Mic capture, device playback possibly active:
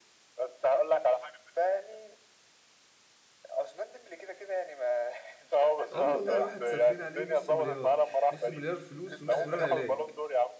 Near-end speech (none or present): present